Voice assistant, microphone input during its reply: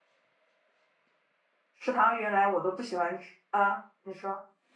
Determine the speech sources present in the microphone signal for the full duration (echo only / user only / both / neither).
user only